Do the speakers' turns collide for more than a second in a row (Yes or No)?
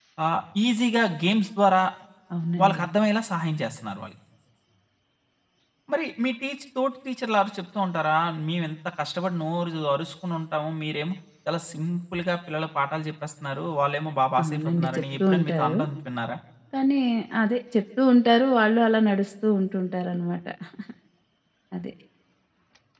Yes